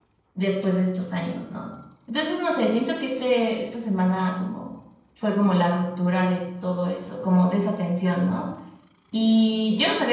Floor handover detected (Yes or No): No